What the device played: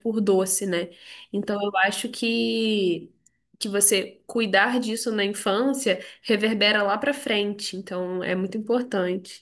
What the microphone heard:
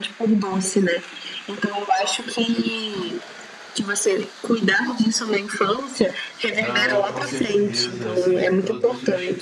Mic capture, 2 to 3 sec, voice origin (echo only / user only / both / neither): echo only